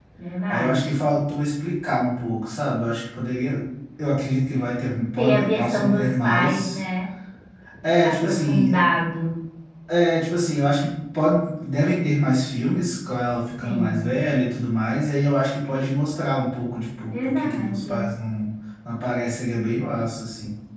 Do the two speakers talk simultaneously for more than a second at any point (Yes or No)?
Yes